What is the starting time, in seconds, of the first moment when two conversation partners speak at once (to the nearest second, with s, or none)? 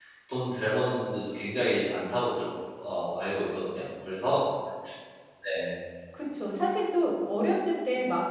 none